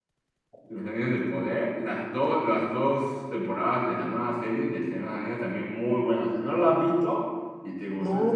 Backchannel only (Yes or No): No